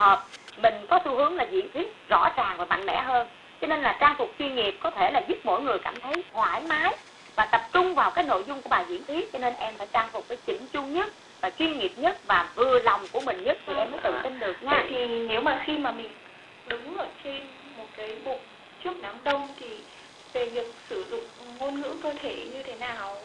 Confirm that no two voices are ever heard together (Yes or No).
No